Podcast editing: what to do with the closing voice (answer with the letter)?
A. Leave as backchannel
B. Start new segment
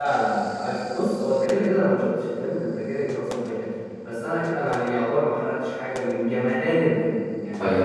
B